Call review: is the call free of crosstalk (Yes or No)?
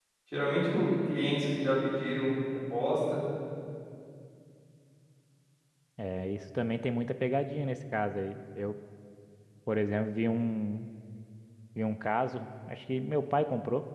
Yes